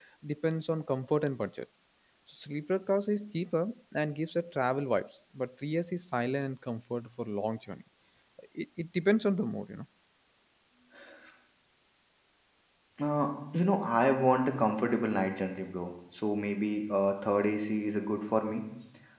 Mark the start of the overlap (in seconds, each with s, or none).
none